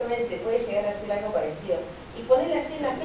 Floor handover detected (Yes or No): No